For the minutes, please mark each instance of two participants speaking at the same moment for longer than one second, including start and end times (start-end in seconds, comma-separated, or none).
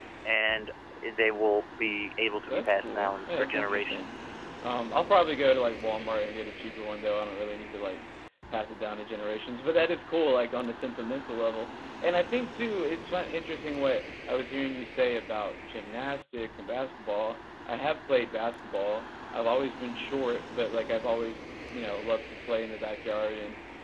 2.5-4.1